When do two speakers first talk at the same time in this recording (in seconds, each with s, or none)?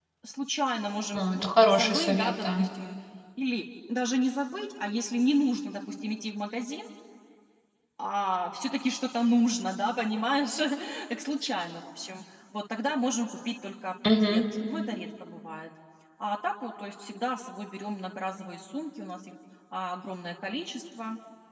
1.1 s